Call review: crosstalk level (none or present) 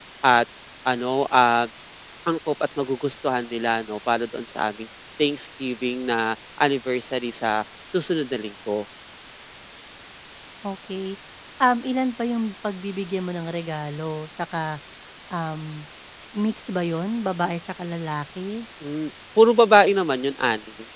none